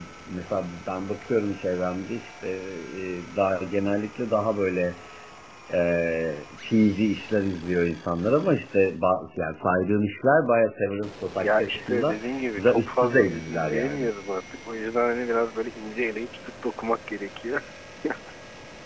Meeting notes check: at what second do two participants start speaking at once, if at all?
11.4 s

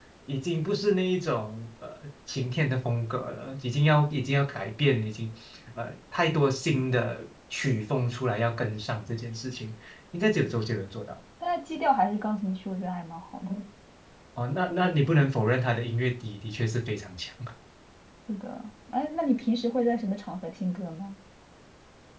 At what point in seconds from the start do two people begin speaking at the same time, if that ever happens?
none

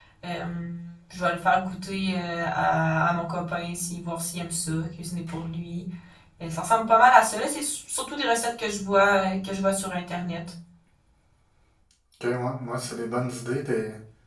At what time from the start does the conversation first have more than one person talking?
none

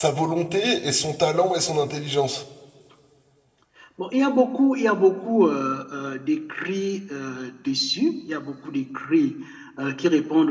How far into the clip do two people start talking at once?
none

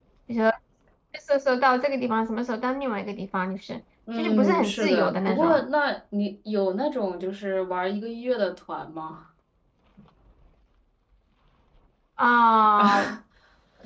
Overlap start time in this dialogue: 4.2 s

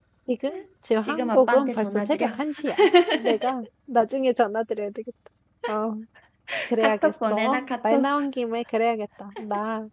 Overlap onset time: 1.0 s

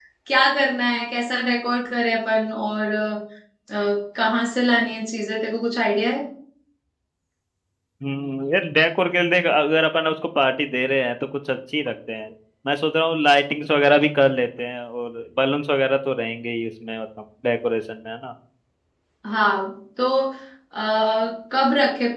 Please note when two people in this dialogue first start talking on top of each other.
none

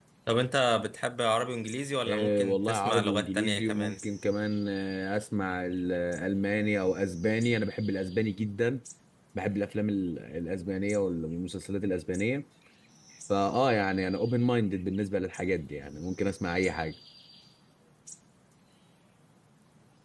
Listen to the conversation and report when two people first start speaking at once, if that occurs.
2.0 s

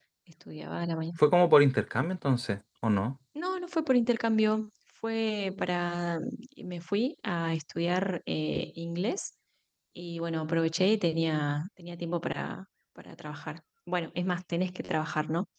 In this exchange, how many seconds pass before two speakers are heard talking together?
none

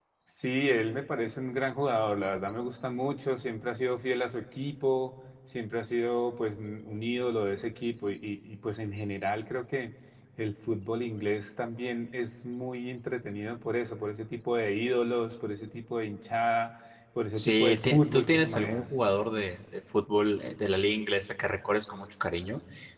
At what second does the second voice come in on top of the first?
17.3 s

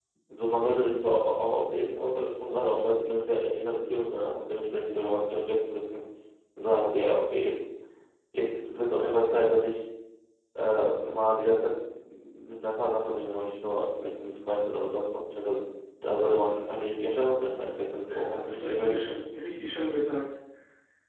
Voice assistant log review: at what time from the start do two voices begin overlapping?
18.1 s

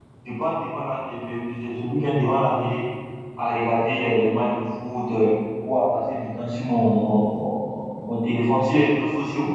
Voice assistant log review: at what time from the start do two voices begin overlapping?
none

